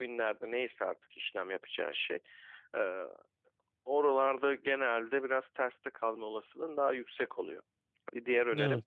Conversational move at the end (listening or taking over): listening